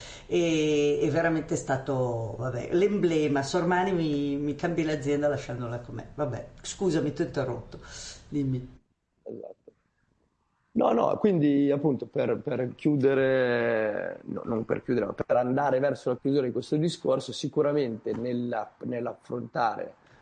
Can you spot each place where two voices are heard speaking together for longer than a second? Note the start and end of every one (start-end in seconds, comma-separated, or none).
none